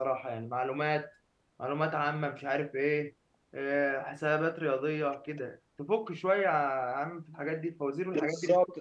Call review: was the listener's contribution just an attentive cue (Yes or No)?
No